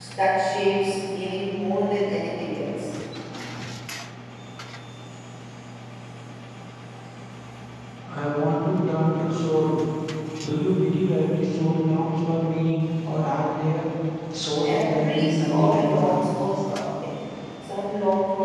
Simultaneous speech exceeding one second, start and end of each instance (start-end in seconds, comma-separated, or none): 14.6-16.1